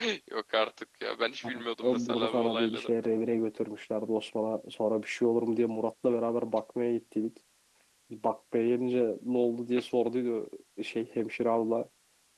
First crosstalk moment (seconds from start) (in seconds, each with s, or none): 1.4 s